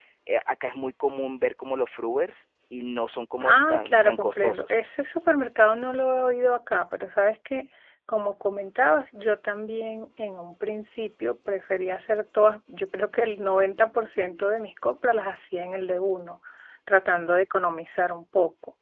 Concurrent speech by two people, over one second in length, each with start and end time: 3.4-4.8

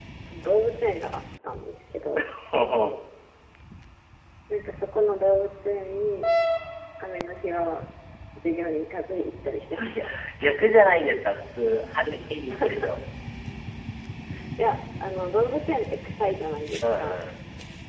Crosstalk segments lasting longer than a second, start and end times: none

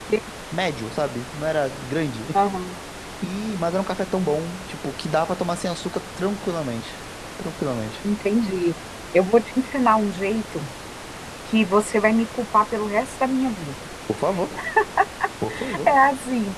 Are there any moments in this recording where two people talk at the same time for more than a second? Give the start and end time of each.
none

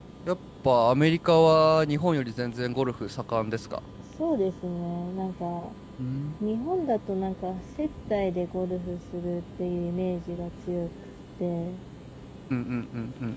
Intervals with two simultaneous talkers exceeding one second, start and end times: none

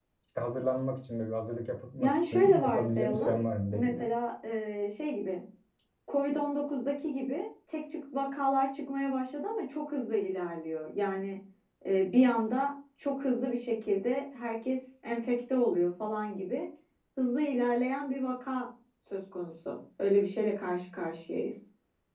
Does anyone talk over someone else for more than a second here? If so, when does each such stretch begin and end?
2.0-3.3

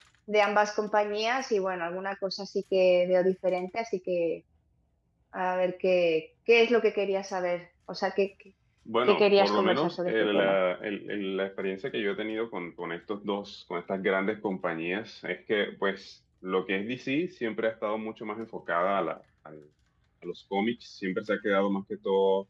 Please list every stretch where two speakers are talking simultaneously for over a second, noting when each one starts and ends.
9.1-10.6

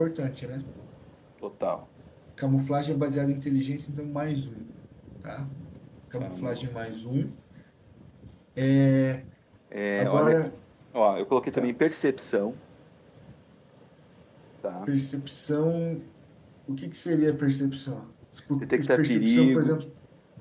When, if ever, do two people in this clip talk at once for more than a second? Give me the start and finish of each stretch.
18.6-19.8

